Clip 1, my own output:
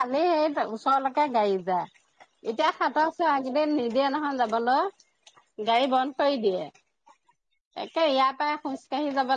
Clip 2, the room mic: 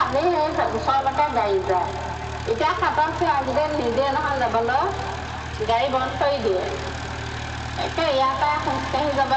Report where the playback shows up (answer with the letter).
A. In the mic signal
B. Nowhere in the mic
A